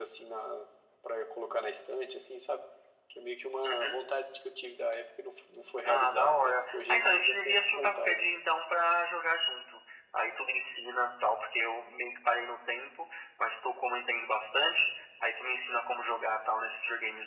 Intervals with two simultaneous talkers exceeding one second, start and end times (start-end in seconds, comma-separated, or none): 5.8-8.3